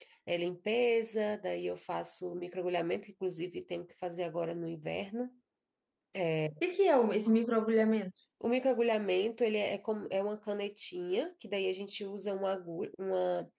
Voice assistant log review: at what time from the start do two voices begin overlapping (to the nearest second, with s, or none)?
none